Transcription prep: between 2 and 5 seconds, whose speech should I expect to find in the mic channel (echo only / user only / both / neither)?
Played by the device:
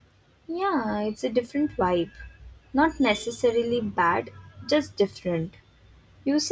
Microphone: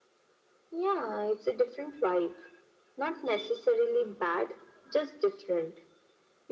echo only